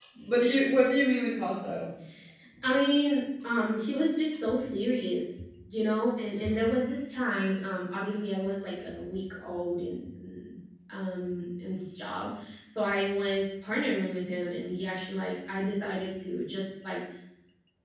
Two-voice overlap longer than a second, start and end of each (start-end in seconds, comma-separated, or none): none